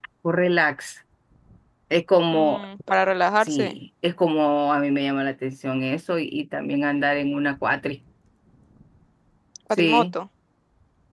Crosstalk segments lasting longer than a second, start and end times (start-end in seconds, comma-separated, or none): none